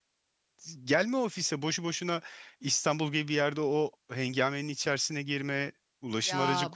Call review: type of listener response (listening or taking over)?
taking over